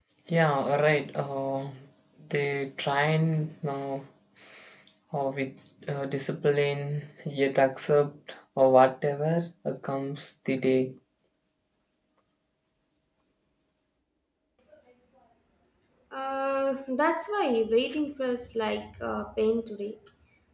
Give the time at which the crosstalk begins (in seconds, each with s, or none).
none